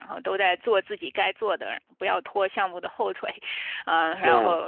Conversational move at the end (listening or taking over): listening